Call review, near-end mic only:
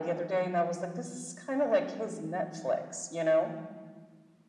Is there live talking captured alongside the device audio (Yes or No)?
No